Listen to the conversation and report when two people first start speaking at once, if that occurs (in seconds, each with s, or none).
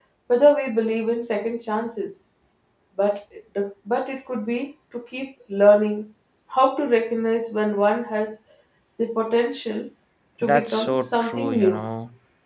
10.4 s